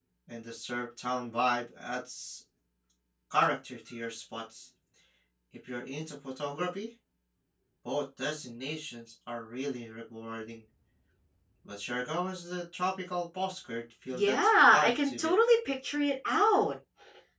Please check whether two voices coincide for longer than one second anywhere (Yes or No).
Yes